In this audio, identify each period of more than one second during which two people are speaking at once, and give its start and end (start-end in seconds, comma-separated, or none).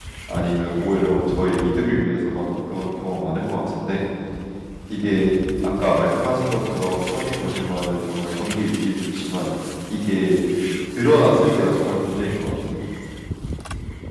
none